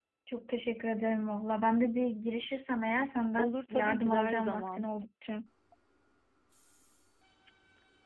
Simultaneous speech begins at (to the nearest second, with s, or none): 3 s